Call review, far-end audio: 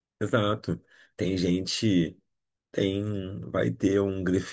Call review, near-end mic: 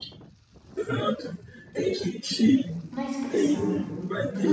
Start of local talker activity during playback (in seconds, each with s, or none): 2.9 s